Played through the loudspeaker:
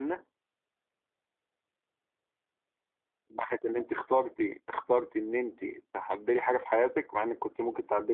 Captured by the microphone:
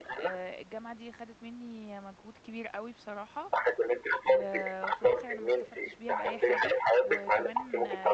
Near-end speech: present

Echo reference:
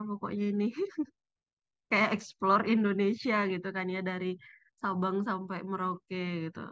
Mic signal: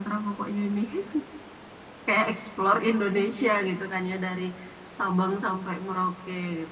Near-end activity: none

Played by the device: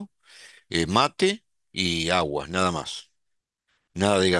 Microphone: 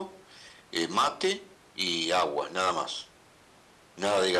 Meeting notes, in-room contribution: none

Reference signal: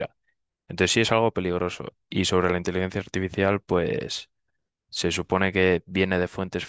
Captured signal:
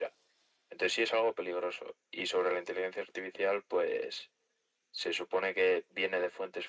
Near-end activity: none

